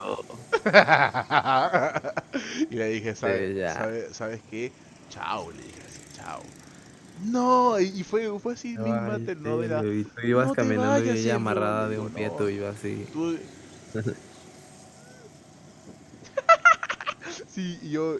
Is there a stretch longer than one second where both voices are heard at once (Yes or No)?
Yes